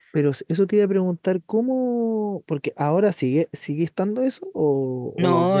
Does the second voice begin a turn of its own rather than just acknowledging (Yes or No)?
Yes